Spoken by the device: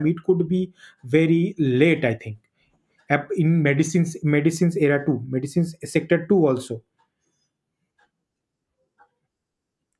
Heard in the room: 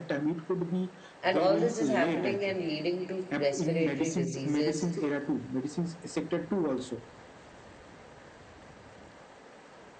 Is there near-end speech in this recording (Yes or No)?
Yes